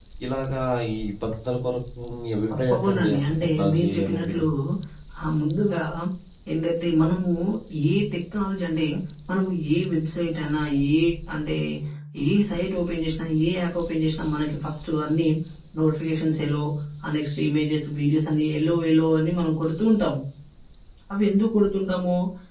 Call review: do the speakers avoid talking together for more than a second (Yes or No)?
No